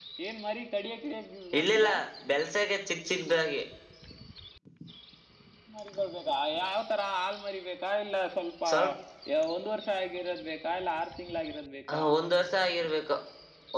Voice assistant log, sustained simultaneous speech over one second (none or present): none